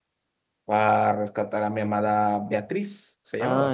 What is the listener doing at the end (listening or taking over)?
taking over